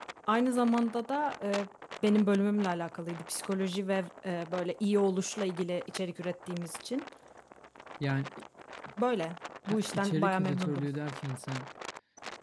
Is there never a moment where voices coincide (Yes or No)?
No